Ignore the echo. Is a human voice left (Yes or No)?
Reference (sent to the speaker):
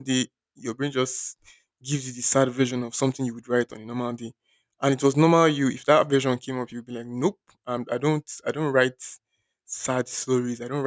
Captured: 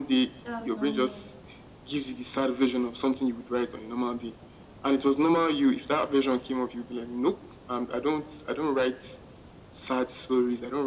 Yes